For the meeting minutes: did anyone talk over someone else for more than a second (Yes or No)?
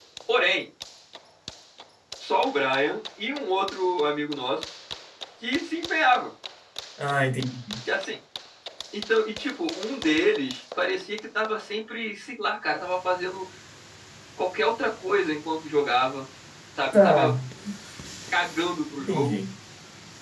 No